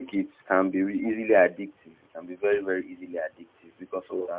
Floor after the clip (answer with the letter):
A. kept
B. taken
A